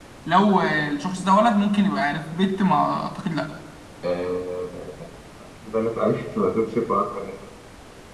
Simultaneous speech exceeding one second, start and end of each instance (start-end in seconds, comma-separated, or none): none